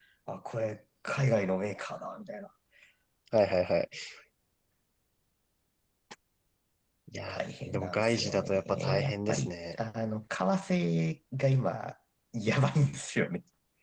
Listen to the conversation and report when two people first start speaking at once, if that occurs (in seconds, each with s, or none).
7.3 s